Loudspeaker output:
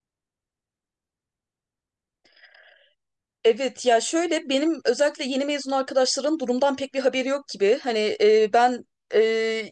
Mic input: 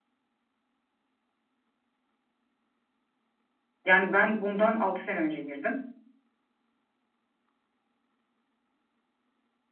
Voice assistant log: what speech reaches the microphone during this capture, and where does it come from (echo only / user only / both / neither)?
user only